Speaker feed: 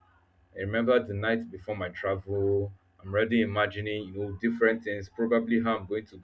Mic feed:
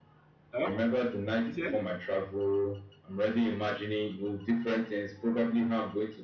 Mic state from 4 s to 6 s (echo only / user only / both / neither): echo only